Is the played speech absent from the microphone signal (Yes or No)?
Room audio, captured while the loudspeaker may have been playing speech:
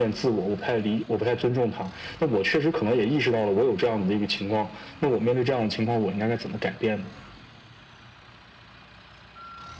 No